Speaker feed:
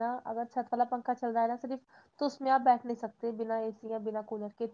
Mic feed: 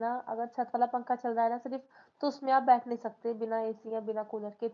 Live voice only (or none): none